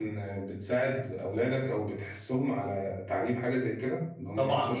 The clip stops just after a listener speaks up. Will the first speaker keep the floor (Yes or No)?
No